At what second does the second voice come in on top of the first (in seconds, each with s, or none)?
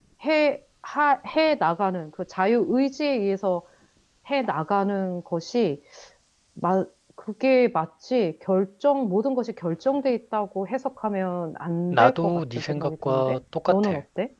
11.9 s